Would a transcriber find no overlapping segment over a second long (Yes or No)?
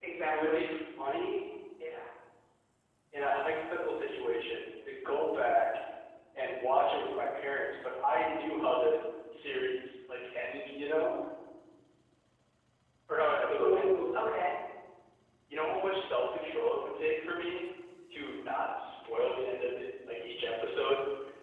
Yes